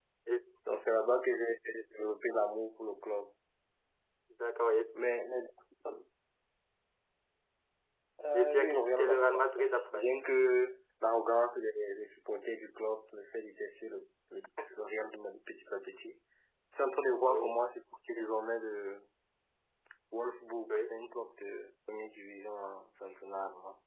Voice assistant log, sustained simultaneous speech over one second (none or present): present